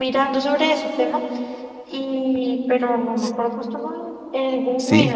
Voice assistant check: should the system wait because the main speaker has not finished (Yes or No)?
No